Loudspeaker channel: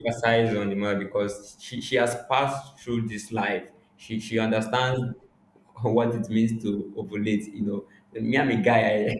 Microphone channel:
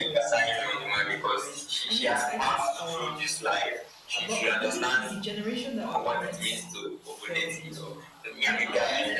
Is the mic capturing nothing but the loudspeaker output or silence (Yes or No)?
No